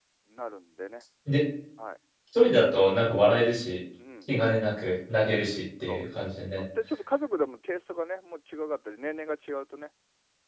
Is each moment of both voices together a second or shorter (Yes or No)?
Yes